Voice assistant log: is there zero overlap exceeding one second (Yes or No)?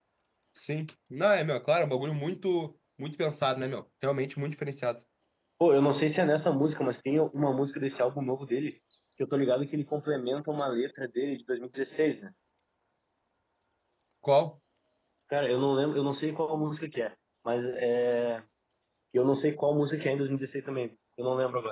Yes